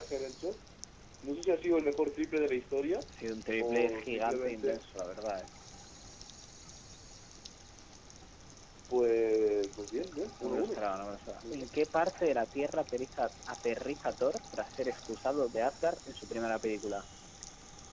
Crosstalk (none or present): present